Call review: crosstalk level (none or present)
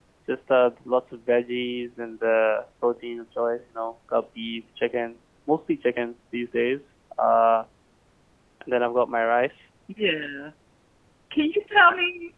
none